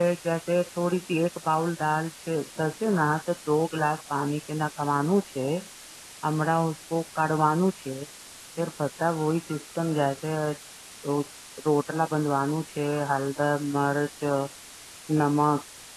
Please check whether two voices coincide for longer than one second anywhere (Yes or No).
No